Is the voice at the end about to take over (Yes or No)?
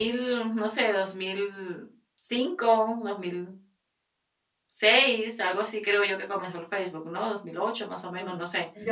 Yes